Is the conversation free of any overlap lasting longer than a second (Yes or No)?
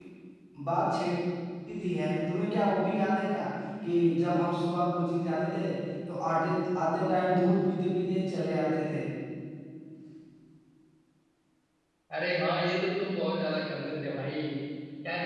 Yes